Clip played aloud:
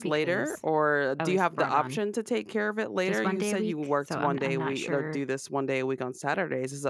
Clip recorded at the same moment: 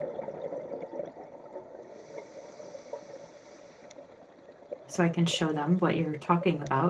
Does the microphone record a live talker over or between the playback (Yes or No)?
Yes